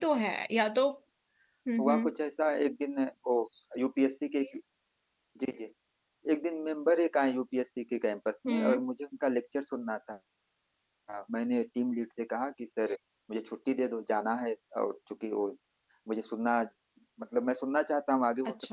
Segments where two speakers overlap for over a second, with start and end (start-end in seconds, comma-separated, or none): none